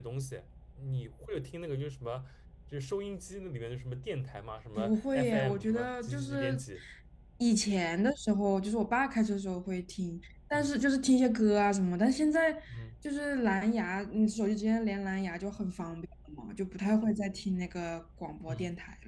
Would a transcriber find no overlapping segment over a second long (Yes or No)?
No